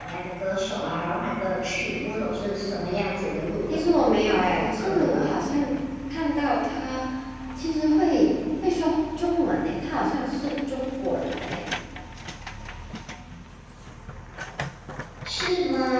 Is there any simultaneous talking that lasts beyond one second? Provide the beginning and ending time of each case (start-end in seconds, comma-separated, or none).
3.7-5.2